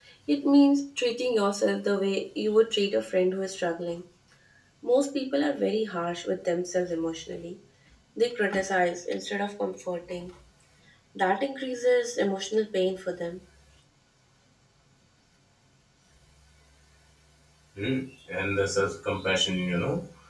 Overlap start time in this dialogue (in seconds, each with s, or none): none